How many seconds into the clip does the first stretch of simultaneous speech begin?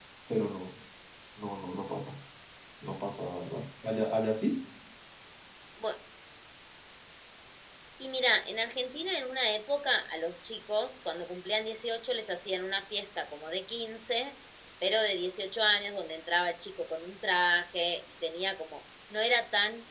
none

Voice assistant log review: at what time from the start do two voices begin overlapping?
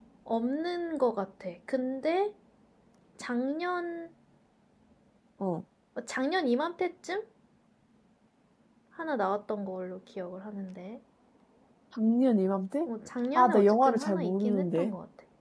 13.4 s

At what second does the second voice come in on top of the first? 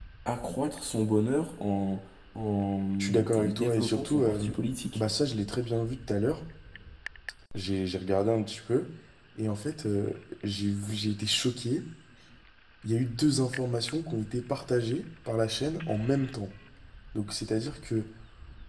3.0 s

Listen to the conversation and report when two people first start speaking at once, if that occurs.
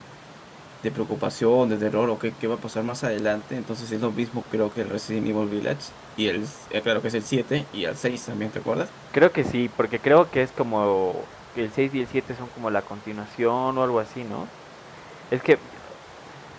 none

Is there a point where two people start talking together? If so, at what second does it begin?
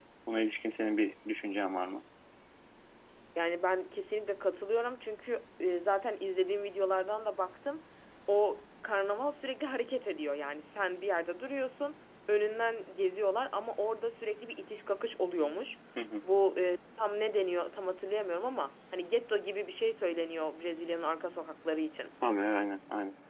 none

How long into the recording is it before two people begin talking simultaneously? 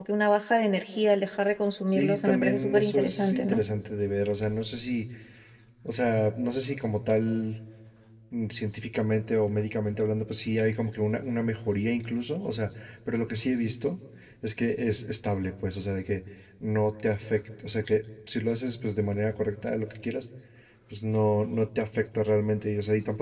1.9 s

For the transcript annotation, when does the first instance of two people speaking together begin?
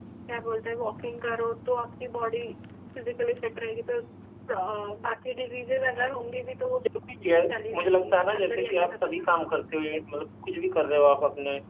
7.8 s

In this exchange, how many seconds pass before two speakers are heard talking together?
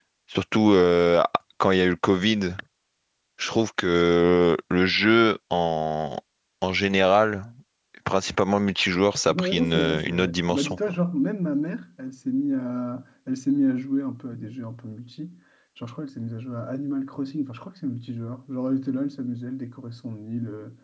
9.3 s

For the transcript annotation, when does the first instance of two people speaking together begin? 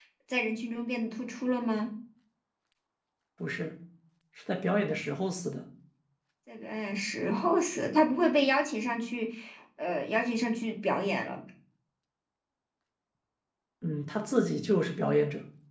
none

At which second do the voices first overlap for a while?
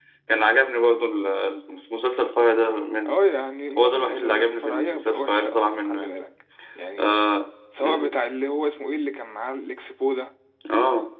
3.8 s

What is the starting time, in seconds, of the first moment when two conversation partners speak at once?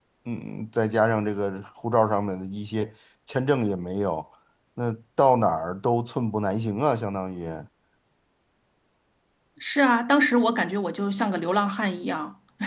none

